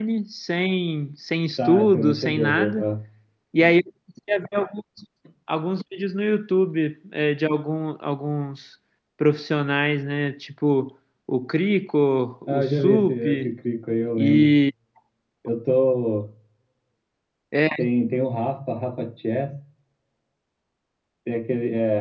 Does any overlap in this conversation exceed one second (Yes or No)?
Yes